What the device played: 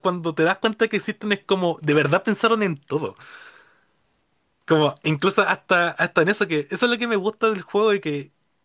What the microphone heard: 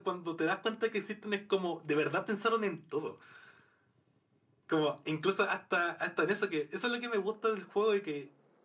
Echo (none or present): present